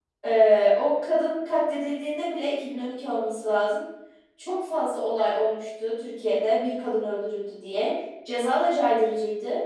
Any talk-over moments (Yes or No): No